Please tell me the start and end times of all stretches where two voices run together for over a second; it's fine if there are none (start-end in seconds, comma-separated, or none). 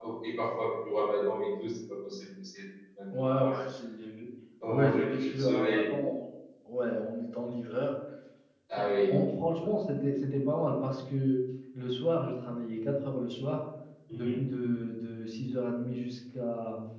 4.7-5.9